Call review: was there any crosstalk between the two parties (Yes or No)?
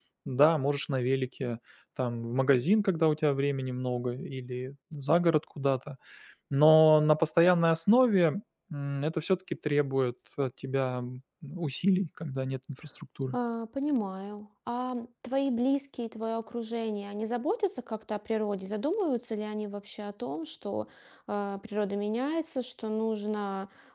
No